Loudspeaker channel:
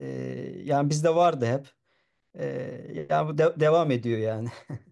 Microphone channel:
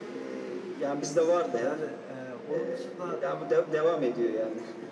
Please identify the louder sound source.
echo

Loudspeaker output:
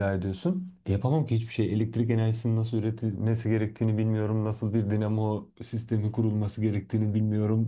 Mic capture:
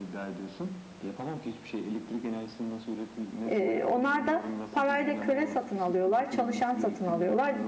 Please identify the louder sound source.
user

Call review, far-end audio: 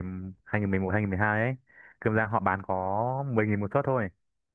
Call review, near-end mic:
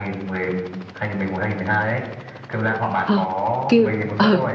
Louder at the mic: user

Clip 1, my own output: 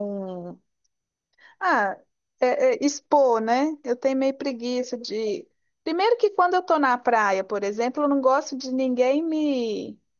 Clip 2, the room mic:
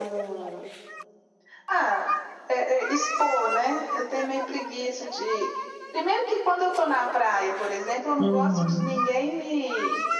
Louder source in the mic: user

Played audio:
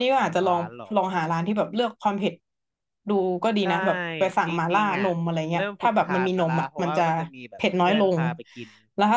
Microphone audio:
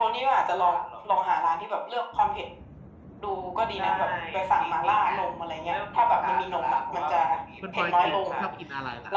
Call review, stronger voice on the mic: echo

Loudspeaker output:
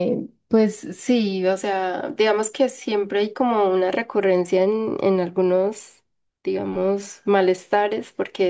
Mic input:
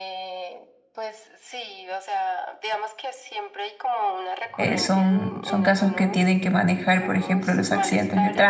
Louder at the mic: user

